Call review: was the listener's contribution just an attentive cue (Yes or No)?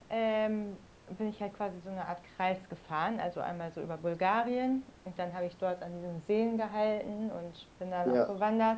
Yes